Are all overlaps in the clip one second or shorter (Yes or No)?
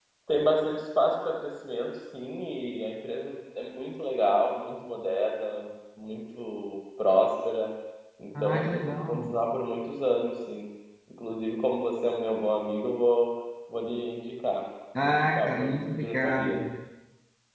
No